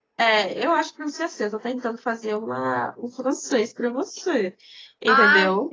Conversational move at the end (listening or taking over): taking over